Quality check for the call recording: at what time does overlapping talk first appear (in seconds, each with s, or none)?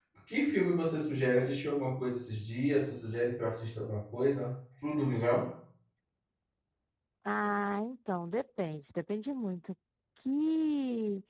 none